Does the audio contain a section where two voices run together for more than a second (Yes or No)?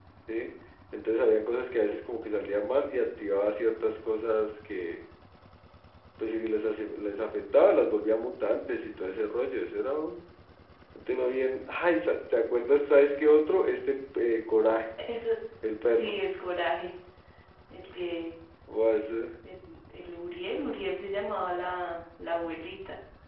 No